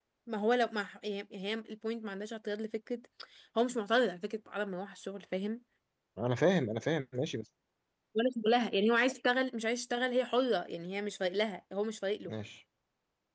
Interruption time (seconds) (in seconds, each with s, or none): none